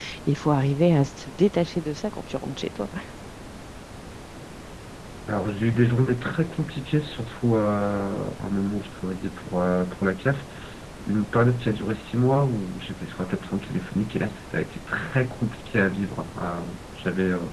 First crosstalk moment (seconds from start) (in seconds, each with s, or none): none